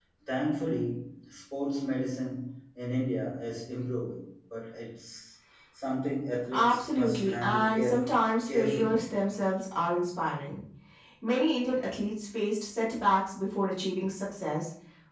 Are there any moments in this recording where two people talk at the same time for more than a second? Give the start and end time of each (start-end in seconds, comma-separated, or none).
6.5-9.0